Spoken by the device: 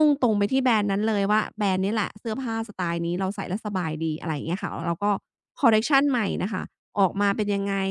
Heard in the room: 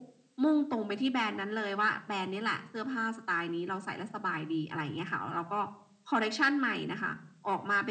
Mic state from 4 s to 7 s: echo only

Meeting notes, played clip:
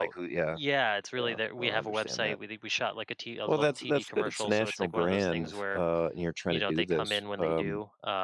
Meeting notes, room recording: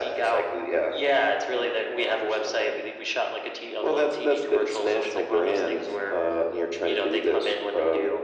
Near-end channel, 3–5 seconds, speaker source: echo only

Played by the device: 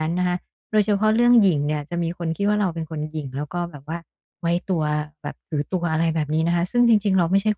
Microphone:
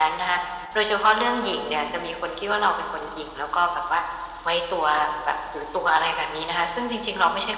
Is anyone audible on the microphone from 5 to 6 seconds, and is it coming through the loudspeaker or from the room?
echo only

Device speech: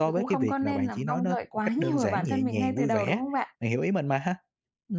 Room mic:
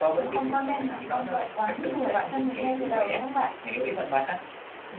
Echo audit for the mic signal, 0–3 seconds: echo only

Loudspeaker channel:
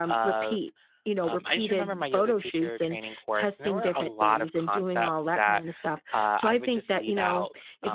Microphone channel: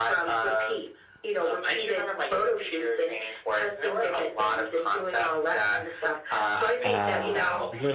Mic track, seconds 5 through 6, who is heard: echo only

